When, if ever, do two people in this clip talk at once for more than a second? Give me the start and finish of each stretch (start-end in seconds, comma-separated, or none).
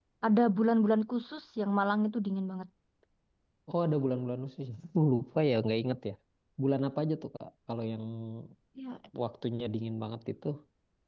none